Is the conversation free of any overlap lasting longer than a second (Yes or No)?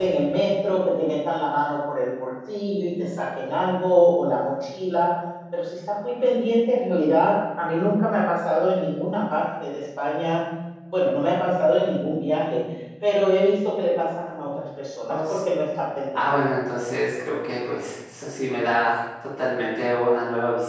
Yes